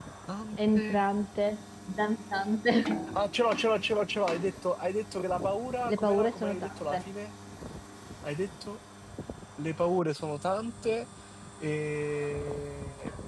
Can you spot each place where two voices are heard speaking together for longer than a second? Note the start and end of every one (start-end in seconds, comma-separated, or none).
5.9-7.1